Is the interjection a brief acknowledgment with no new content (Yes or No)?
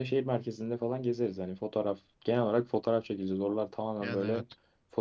Yes